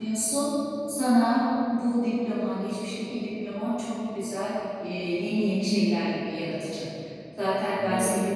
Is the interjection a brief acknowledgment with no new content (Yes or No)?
Yes